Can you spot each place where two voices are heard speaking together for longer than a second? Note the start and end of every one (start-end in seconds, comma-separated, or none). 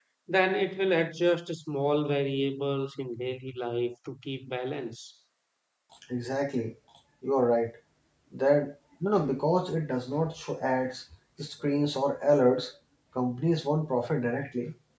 none